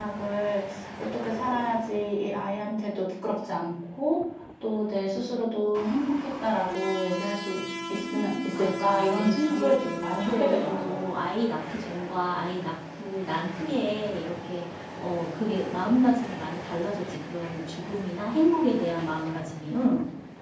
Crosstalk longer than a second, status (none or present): present